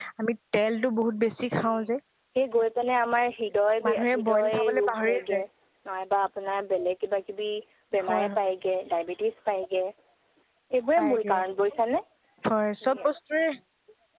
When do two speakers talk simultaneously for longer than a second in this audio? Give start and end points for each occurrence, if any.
4.1-5.4

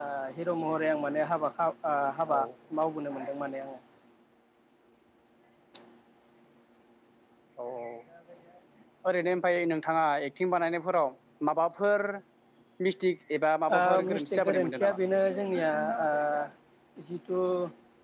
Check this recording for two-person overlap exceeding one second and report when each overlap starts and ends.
13.8-15.0

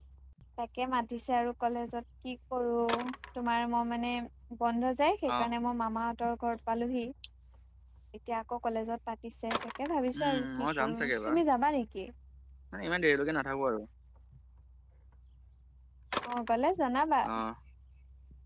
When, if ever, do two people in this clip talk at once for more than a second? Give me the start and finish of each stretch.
10.2-11.4

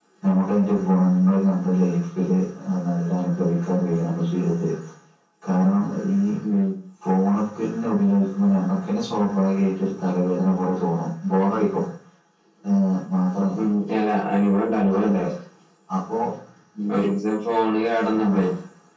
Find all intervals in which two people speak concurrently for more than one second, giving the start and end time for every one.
none

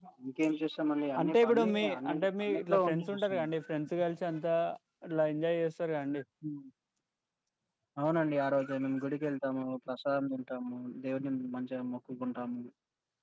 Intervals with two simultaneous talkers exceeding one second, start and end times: 1.2-3.4

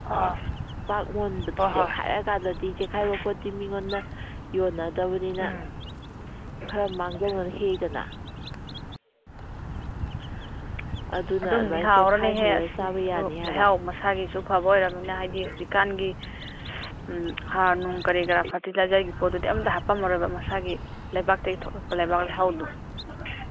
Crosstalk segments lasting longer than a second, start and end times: 11.4-13.6

